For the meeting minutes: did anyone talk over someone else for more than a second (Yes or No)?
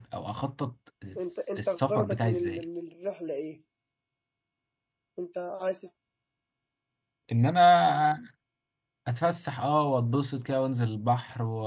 Yes